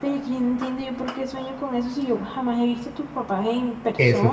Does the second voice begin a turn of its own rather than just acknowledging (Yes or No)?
Yes